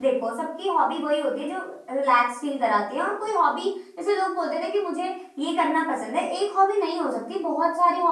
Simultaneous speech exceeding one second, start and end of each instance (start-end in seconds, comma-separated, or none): none